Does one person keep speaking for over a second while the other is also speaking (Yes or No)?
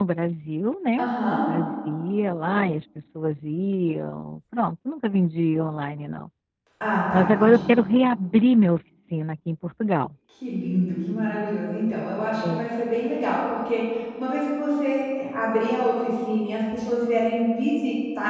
No